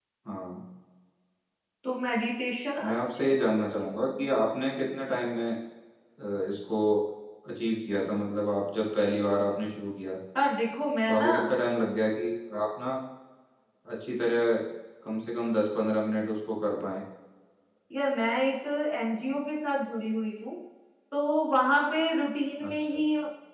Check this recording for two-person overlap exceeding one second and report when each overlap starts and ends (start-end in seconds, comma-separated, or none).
2.8-4.3